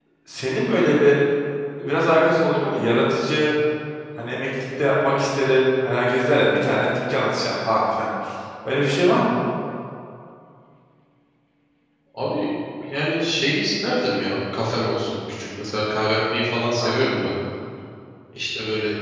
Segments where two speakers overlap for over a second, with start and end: none

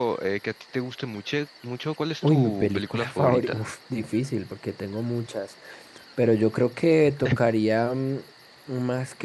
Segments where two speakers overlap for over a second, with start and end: 2.2-3.6

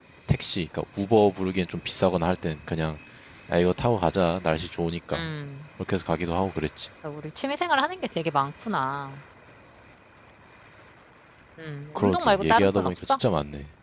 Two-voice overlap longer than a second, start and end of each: 11.9-13.2

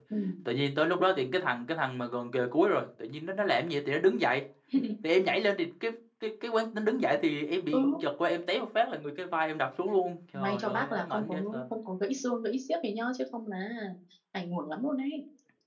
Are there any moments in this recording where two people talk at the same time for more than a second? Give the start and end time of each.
10.3-11.6

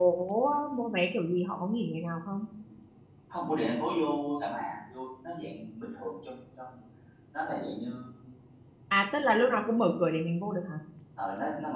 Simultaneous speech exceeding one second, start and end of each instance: none

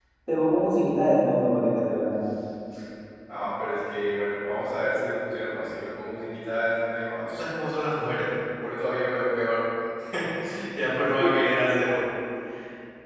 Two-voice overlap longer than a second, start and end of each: none

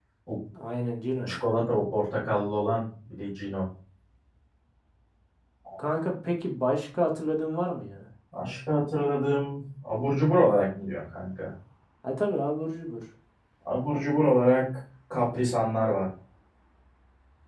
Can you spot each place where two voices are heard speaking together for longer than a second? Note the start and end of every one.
none

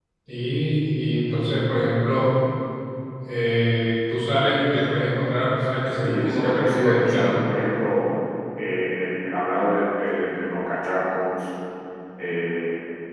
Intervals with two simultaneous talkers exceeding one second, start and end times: 6.0-7.4

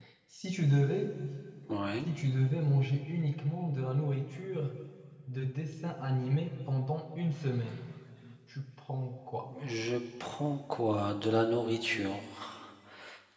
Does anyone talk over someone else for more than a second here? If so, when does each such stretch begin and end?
none

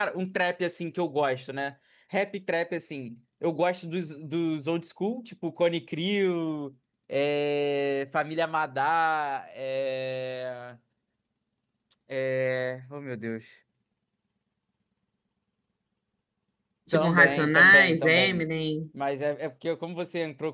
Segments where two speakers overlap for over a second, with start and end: 16.9-18.4

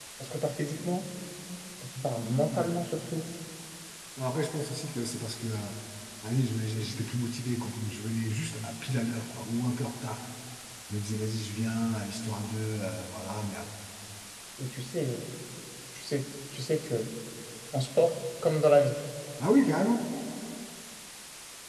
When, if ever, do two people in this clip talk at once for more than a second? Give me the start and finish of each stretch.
none

